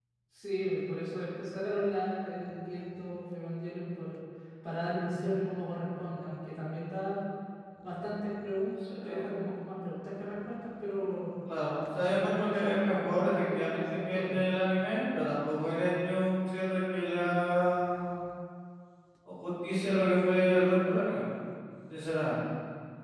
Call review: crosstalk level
present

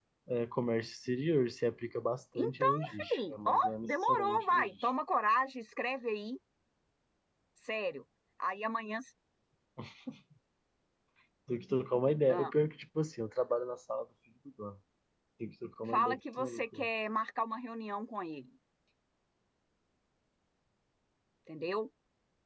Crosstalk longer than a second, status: present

